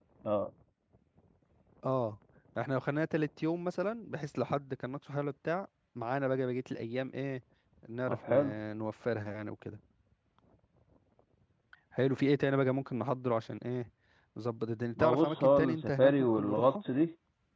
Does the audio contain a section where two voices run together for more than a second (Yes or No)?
Yes